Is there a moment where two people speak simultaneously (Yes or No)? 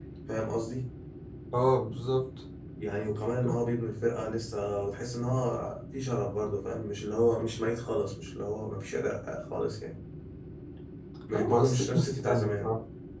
Yes